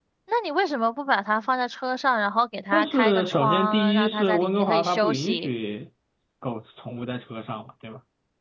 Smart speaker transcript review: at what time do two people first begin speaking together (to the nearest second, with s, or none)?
3 s